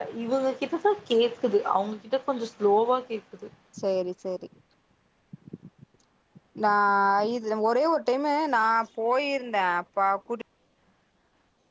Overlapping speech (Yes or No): No